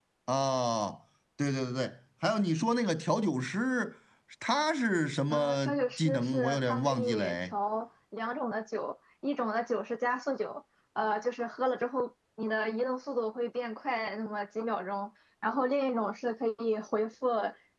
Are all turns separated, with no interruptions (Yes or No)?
No